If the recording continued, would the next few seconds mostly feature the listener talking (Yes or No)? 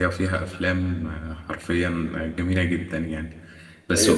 No